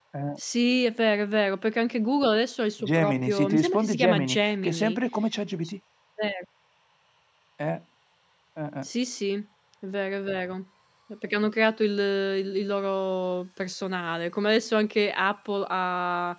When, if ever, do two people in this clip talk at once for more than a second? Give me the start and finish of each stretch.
2.8-5.0

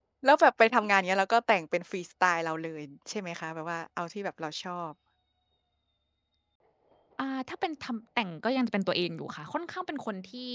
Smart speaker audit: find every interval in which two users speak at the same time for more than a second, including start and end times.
none

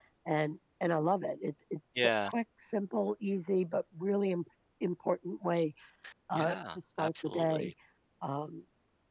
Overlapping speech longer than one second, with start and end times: 6.3-7.7

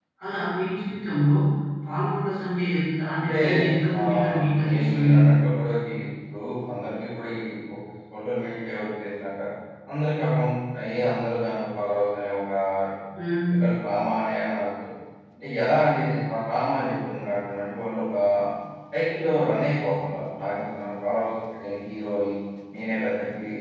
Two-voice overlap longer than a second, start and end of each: 4.0-5.2

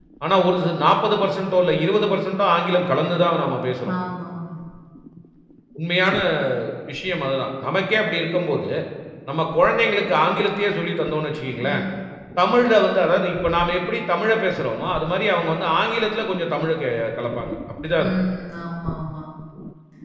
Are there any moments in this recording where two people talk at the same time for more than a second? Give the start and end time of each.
none

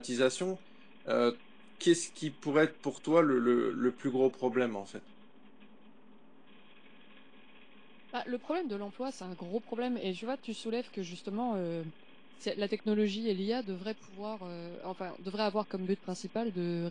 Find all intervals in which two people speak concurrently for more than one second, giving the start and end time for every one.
none

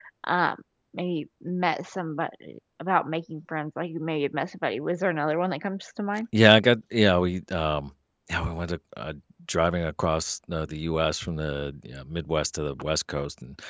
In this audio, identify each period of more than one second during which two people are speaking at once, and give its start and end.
none

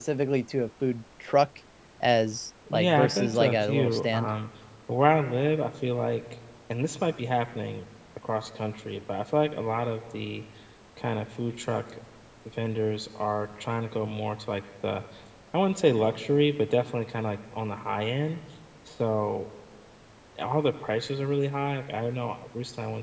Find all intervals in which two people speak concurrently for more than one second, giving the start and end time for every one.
2.7-4.3

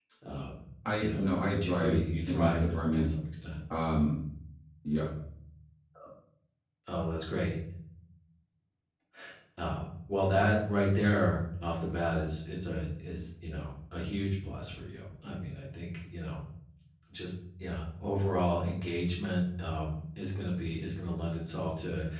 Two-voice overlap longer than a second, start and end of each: 1.0-3.1

